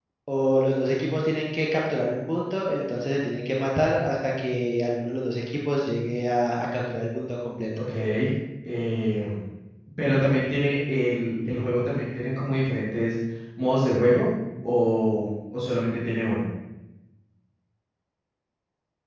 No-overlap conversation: Yes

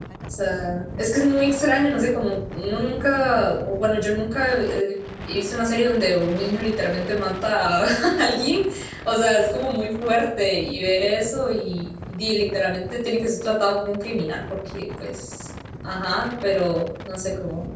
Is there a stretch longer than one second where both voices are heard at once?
No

